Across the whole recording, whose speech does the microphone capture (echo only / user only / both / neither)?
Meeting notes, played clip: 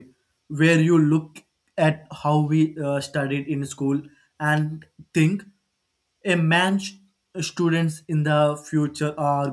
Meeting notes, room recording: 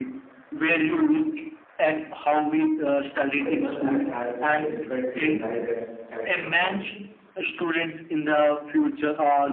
both